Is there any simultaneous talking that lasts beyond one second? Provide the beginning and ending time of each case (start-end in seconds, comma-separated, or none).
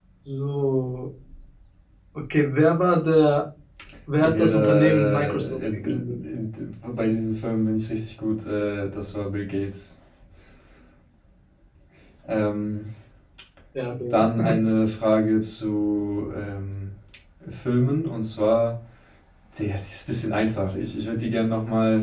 4.2-6.2